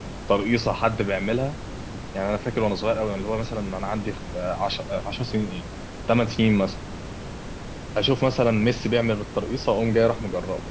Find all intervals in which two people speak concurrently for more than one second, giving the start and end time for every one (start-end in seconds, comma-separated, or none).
none